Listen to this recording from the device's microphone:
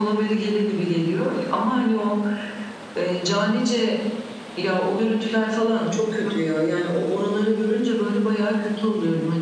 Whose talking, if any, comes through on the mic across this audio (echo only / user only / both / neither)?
echo only